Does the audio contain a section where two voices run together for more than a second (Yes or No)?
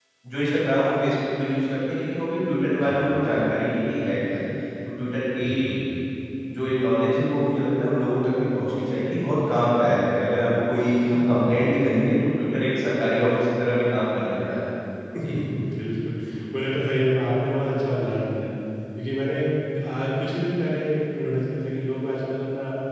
No